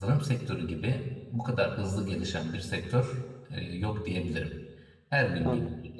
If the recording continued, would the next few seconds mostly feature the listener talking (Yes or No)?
No